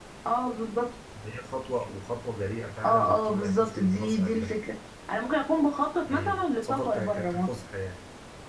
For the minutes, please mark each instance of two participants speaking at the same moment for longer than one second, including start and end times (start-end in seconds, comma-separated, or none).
2.9-4.5, 6.1-7.5